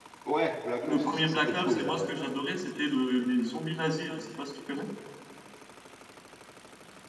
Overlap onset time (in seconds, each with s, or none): 0.8 s